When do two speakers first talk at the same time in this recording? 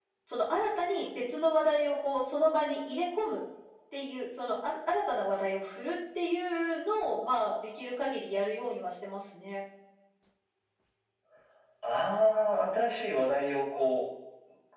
none

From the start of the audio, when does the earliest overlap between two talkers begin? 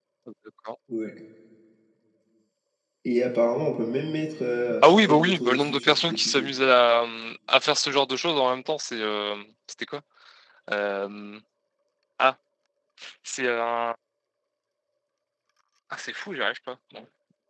4.8 s

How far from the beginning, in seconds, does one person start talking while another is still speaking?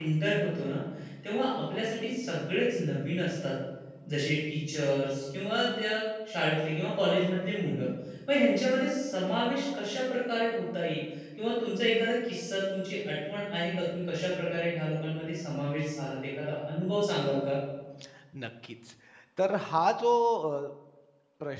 none

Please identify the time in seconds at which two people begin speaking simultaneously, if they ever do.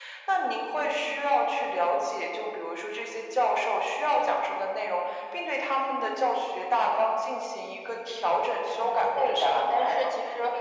8.7 s

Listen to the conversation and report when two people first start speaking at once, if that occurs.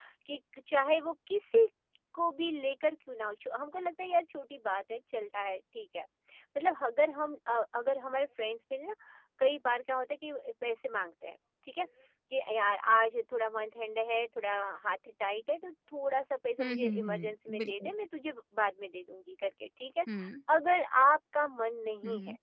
16.6 s

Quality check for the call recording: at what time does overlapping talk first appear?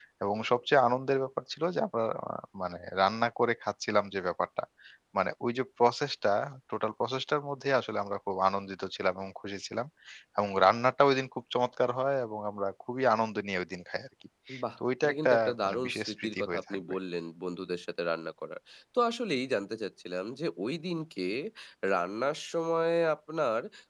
15.0 s

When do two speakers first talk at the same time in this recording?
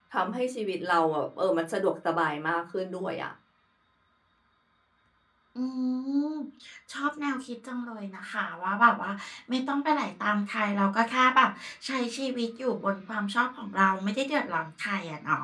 none

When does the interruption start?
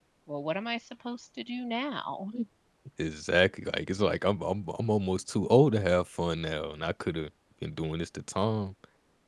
none

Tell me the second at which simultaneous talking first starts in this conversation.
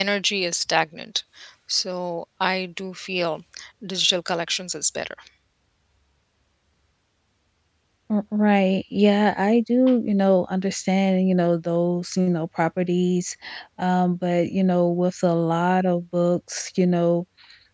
none

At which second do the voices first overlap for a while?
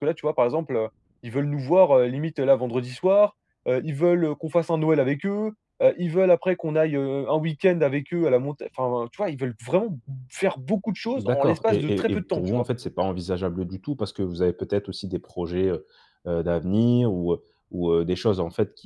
11.2 s

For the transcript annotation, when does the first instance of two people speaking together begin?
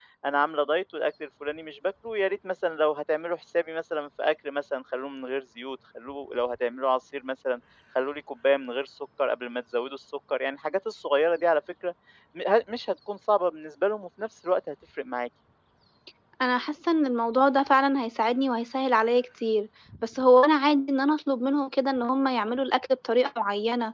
none

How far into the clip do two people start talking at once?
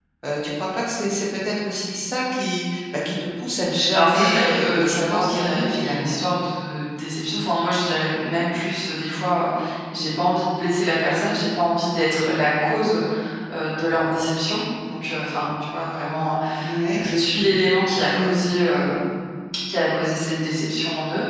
3.9 s

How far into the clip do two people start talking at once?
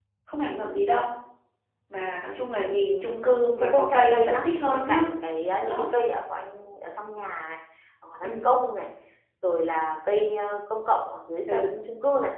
3.6 s

